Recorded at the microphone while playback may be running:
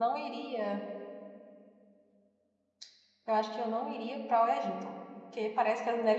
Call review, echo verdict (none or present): none